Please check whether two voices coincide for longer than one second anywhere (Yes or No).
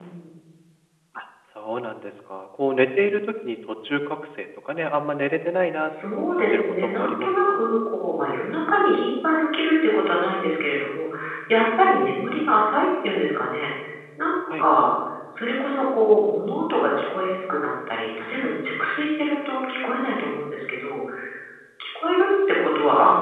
Yes